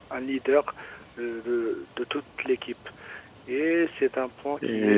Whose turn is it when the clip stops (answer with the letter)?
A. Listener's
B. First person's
A